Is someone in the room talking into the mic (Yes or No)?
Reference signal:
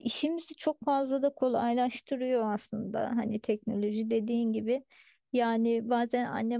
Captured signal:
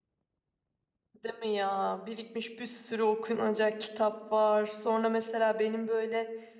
Yes